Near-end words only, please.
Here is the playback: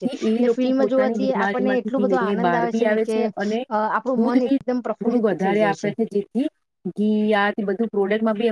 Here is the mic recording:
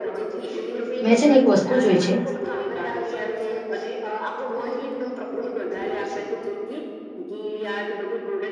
મેં છે ને એક વસ્તુ જોય છે

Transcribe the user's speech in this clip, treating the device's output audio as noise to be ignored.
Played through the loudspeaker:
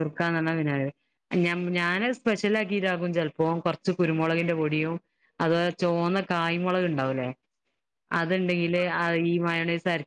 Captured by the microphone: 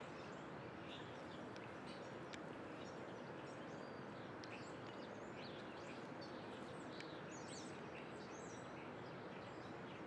none

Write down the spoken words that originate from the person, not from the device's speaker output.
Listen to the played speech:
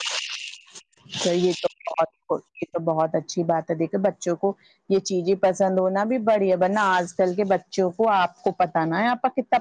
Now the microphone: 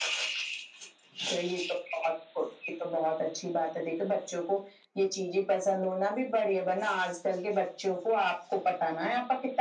none

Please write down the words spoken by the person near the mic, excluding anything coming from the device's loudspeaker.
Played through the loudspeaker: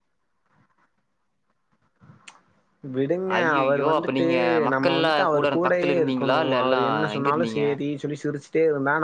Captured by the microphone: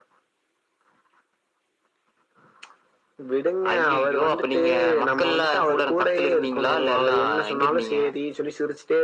none

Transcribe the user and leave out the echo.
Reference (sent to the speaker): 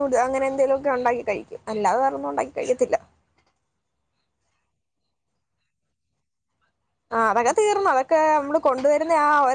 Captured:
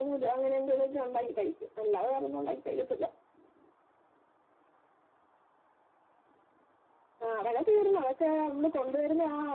none

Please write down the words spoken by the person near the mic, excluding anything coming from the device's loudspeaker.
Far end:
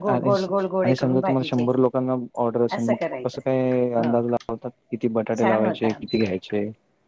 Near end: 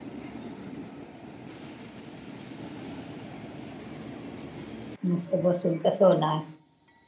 मुस्त बसून कसं होणार.

